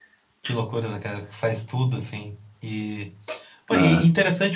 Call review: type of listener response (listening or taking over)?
listening